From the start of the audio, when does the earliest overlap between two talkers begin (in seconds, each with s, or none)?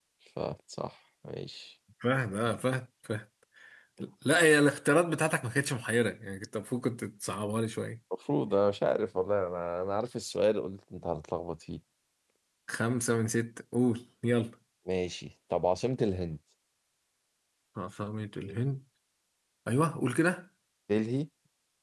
none